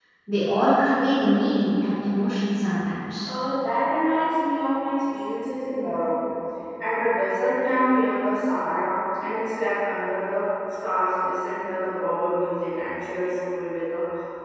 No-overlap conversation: Yes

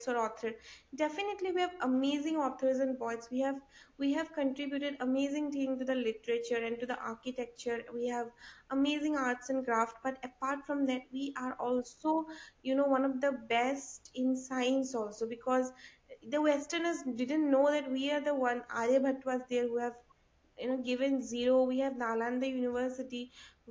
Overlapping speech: No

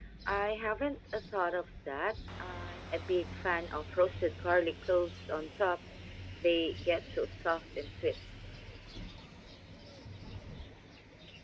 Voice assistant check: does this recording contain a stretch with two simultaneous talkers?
No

